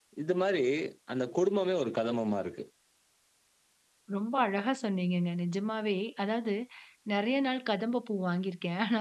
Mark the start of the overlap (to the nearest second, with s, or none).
none